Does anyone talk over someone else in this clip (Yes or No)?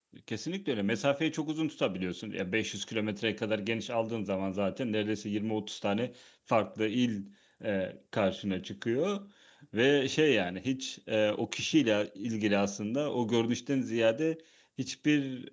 No